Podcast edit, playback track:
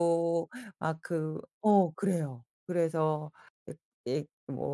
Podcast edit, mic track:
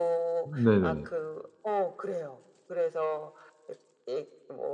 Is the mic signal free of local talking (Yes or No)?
No